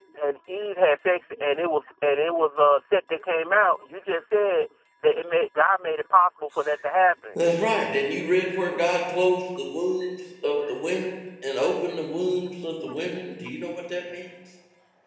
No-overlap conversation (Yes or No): Yes